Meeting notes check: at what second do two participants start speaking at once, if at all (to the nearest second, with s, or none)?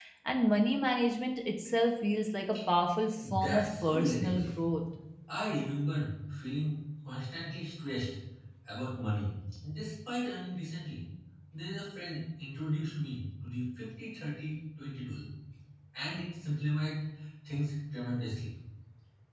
3 s